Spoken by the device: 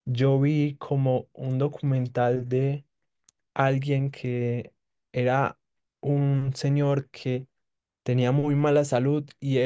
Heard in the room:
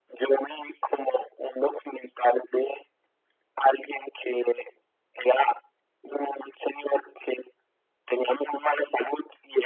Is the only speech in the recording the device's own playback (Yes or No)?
Yes